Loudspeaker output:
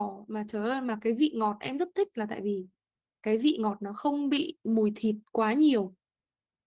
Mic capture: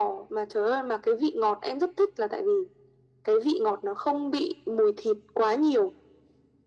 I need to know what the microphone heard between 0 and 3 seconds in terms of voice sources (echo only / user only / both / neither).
echo only